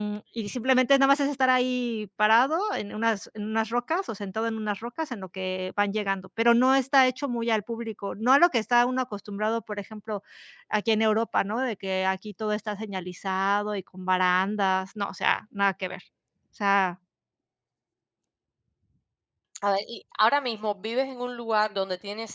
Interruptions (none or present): none